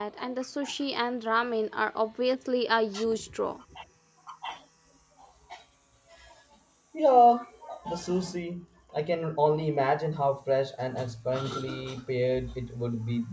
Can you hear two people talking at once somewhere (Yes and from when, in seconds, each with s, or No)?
No